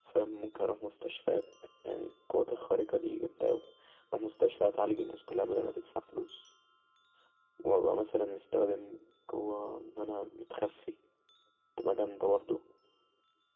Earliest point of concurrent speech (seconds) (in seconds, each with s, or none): none